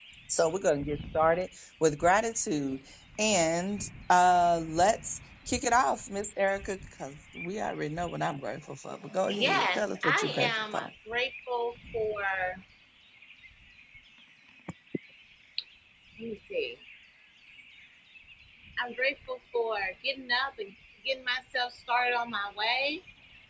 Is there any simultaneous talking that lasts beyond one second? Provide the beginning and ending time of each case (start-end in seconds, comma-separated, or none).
9.3-10.9